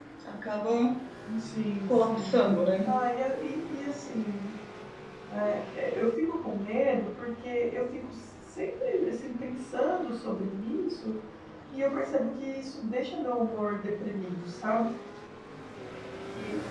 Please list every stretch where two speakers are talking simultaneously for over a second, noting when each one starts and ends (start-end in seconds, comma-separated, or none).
none